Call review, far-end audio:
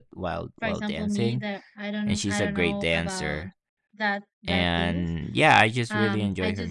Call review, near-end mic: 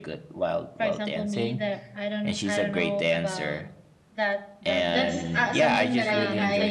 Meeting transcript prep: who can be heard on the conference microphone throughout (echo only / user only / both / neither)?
both